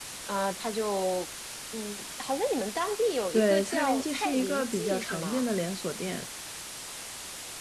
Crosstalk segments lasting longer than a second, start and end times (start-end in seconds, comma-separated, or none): 3.3-5.5